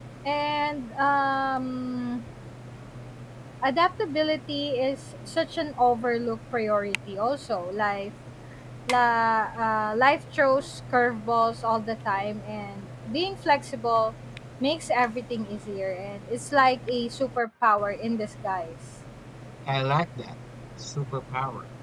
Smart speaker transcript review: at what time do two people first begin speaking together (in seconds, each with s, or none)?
none